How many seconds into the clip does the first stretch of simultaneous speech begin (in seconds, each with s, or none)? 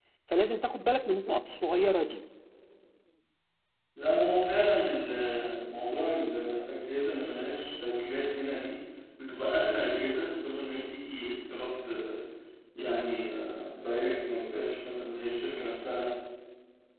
none